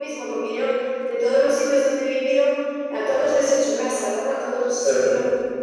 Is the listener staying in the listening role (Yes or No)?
Yes